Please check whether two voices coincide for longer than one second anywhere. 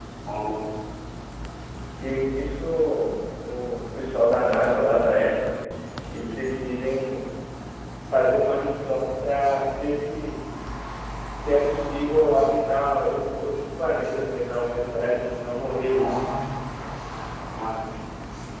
No

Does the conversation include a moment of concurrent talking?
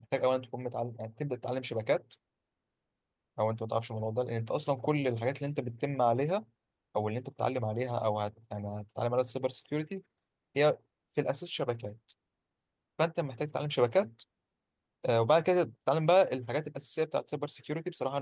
No

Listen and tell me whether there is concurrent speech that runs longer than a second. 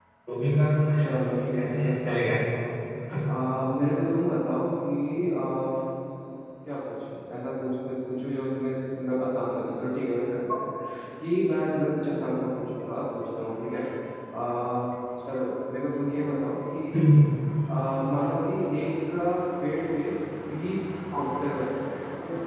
Yes, from 1.0 s

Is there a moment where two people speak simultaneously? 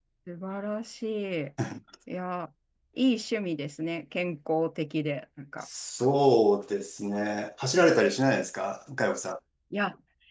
No

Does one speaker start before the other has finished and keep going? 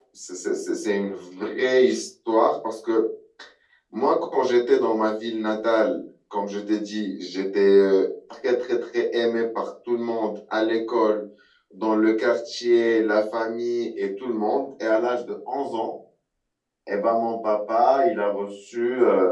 No

